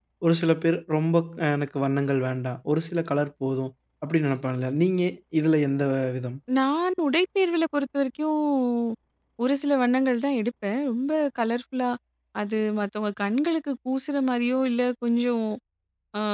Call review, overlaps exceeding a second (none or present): none